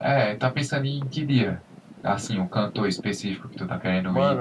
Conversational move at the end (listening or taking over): taking over